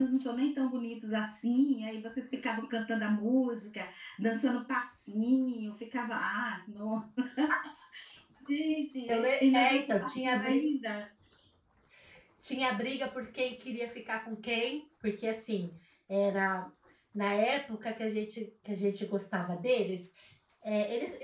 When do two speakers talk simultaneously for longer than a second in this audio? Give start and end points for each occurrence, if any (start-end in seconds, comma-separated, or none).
9.1-10.7